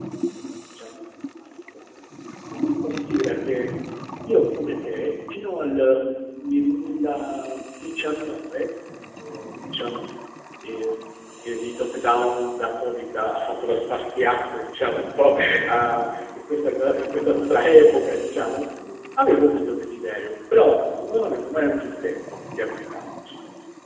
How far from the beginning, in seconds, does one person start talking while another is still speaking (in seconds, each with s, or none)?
none